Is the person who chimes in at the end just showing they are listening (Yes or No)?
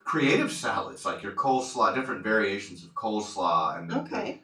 Yes